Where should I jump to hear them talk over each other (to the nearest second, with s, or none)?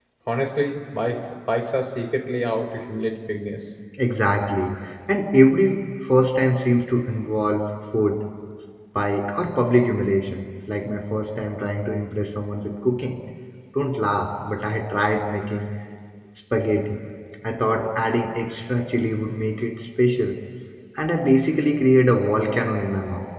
none